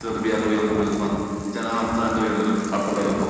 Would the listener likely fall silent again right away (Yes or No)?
Yes